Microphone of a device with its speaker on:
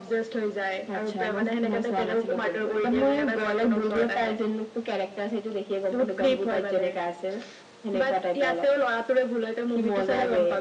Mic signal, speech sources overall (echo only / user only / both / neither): echo only